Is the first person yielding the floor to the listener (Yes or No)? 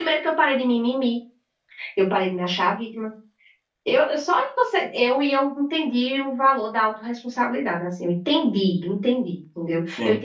No